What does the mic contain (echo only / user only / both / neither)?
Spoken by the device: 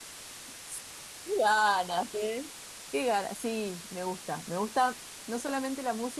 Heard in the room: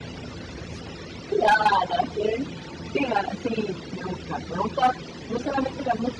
echo only